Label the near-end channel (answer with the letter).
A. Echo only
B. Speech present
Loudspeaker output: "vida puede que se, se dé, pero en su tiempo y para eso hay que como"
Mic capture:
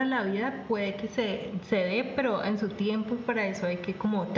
A